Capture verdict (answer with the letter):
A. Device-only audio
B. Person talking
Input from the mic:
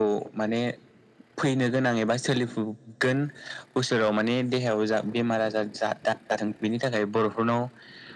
A